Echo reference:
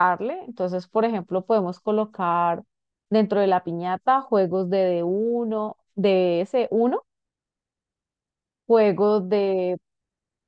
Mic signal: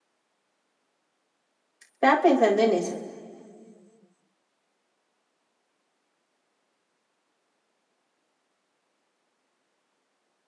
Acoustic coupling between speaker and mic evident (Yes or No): No